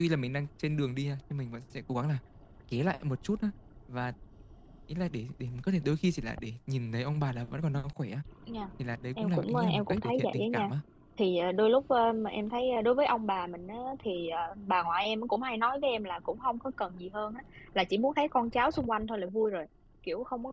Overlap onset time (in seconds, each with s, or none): 9.2 s